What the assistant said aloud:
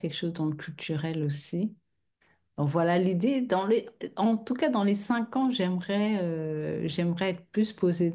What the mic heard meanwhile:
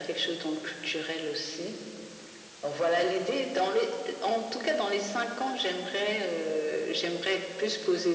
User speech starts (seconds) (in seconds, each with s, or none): none